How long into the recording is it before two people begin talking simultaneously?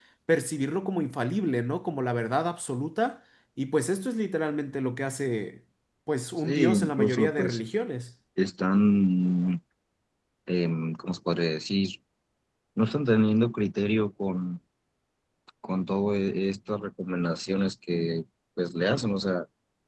6 s

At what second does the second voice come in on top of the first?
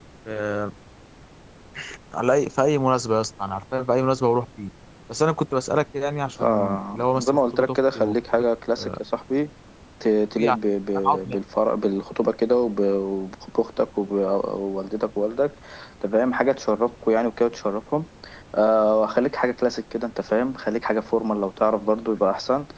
6 s

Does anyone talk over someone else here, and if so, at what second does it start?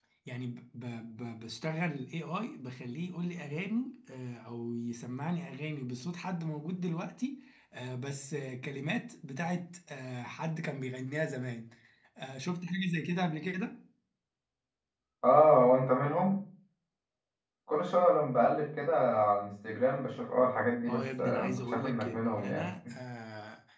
21 s

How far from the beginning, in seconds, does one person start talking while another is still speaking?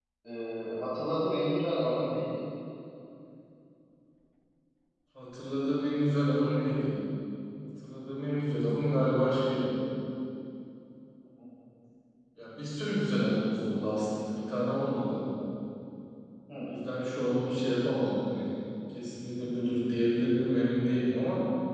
none

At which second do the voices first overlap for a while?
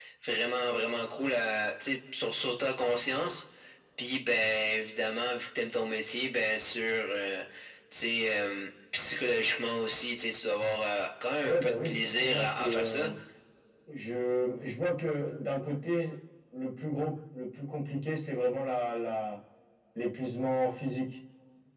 11 s

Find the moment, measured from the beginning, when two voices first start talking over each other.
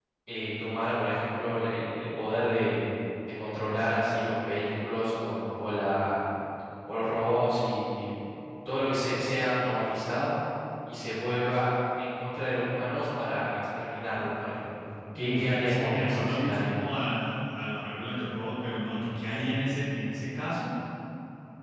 15 s

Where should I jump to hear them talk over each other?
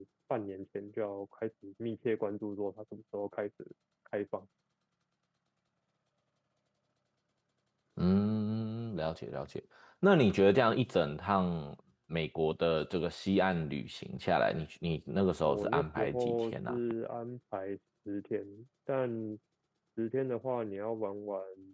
15 s

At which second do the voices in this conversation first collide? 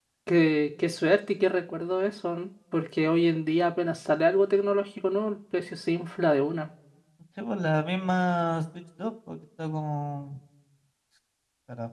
none

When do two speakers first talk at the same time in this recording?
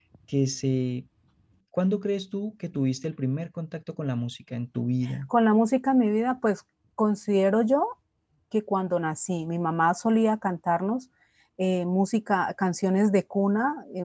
none

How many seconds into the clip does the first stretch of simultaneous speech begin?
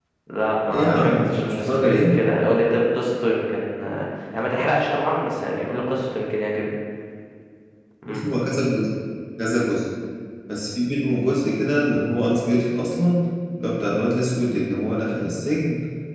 1 s

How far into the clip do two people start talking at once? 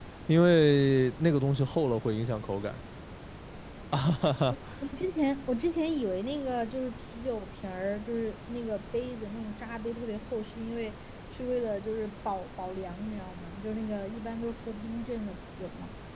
none

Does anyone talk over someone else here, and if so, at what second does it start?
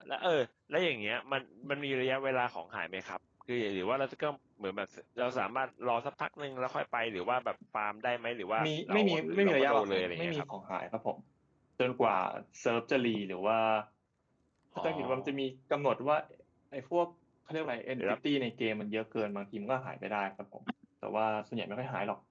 9 s

